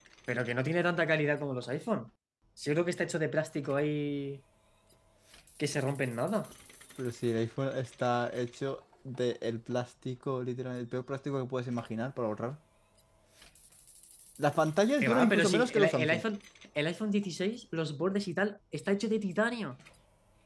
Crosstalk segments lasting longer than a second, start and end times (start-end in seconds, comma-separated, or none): 15.0-16.2